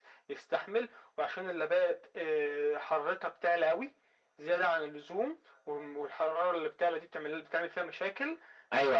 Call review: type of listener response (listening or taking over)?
taking over